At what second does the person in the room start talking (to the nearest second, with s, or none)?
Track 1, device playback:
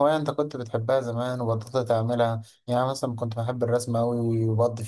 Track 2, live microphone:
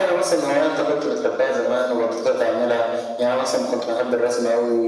none